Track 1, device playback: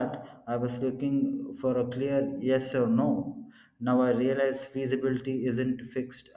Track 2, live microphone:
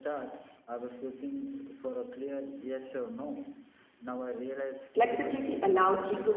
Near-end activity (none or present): present